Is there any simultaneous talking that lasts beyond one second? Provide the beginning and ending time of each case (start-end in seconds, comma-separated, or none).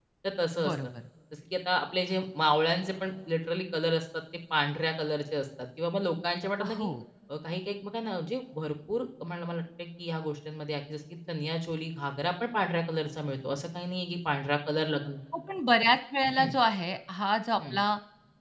none